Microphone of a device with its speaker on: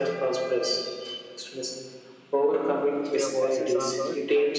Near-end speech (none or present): present